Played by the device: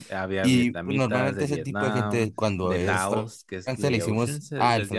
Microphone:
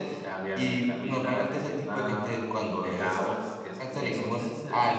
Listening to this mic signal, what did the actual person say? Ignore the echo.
none

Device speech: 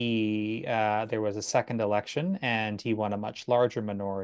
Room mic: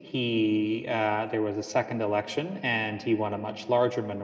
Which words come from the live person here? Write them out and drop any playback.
none

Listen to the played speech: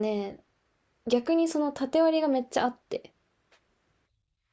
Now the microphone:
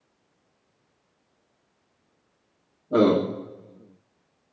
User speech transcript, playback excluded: うん、

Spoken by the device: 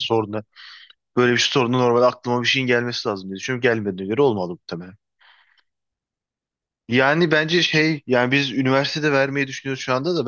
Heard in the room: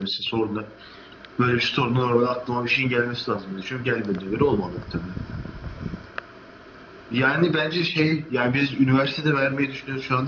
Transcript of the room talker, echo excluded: none

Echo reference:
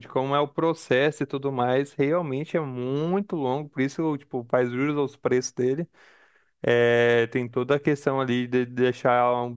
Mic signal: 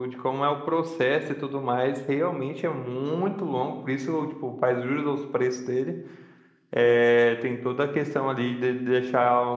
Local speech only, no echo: none

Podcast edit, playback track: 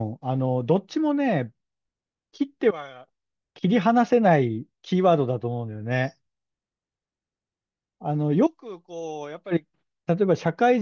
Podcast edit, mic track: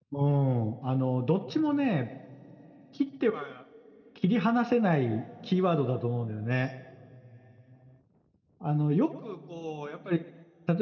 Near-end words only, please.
none

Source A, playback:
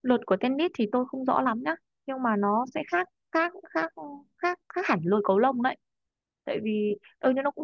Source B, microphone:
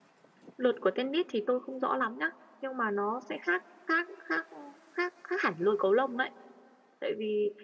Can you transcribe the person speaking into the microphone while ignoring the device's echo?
none

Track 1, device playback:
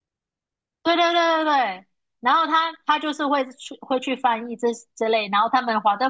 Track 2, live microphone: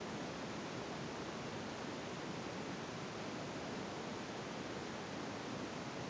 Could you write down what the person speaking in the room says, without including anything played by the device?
none

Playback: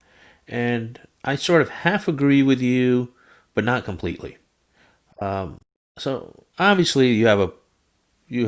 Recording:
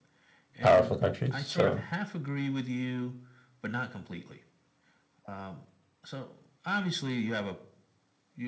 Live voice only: powerful countries. So,

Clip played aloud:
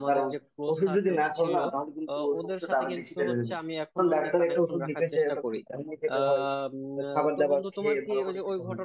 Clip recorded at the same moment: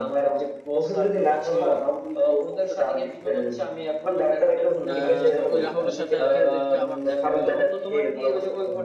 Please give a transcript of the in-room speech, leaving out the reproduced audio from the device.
আহ, তো ওই রাহুলের সাথে আর কি ওদেরকে আবার দেখা হইলো

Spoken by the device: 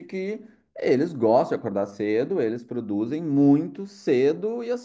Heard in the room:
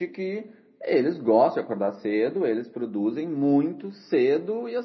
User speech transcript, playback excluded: none

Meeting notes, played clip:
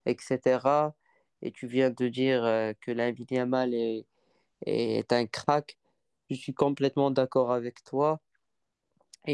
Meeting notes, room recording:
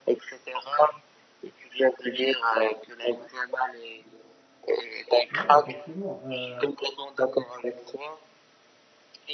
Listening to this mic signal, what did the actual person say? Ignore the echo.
Ouais, effectivement. Euh,

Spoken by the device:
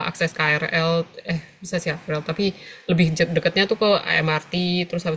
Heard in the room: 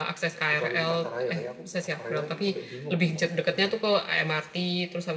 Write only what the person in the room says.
kecuali di pasaraya kayak aku pasaraya aja sampai bingung aku makan apa di sana

